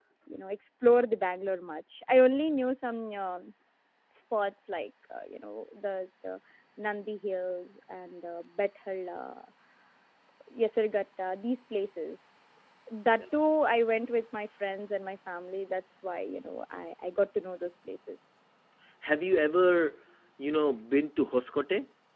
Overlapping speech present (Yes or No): No